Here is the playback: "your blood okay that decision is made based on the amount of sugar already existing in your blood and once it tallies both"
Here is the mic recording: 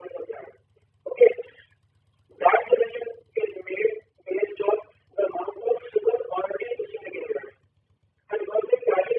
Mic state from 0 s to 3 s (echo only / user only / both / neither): echo only